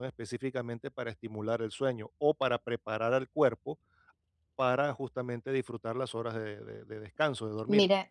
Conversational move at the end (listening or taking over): taking over